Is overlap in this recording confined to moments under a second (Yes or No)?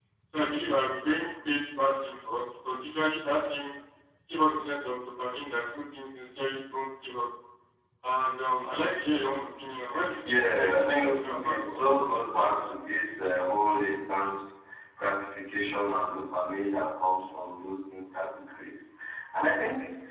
No